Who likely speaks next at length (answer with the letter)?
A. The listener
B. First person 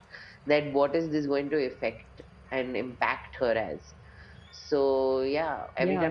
A